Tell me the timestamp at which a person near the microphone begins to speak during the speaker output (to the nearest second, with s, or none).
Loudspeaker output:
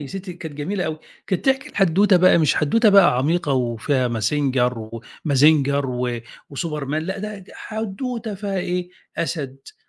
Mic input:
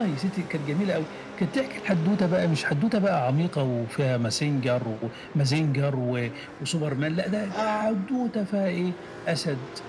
8 s